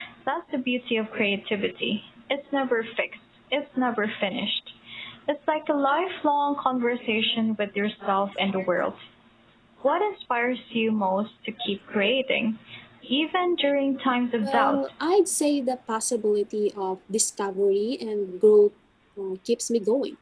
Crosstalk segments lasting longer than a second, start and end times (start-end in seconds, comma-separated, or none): none